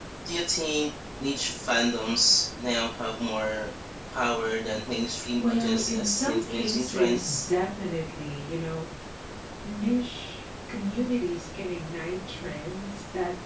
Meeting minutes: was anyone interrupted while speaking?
Yes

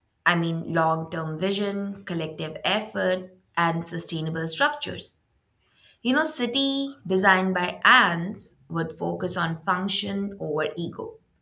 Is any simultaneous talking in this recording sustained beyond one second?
No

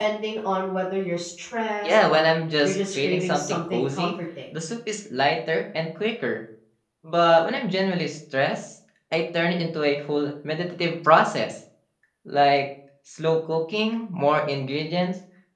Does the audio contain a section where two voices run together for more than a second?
Yes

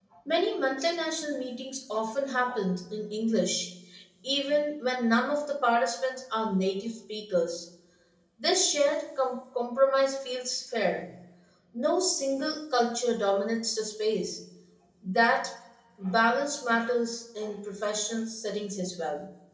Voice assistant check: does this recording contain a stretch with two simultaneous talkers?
No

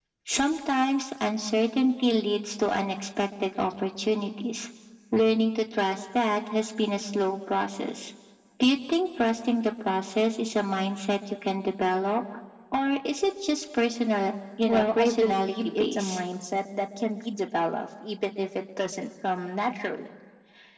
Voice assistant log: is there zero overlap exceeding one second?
No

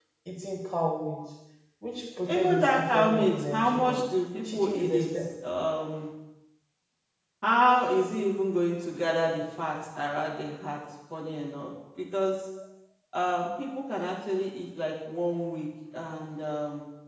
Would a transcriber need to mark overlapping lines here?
Yes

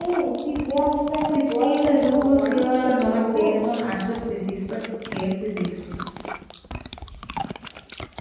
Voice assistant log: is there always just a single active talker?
No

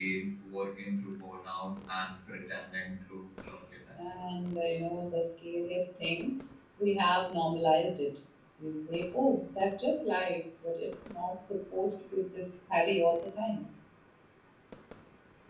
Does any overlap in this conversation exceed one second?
No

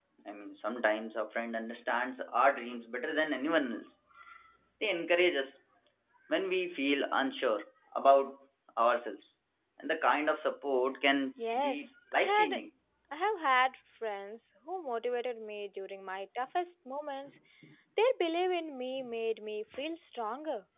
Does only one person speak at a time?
No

